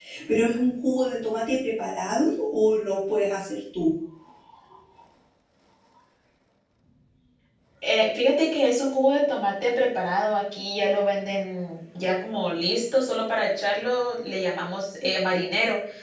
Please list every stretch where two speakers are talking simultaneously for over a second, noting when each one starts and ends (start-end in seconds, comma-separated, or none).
none